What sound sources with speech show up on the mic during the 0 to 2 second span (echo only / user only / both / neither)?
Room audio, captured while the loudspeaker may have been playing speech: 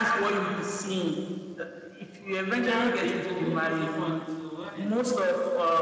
echo only